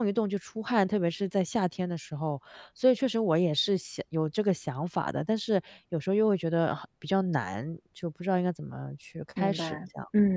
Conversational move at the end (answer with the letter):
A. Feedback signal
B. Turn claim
B